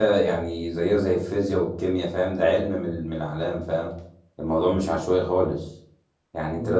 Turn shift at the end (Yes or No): No